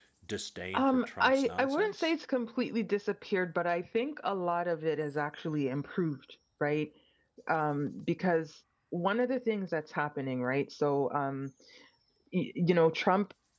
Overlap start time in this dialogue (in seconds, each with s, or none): 0.7 s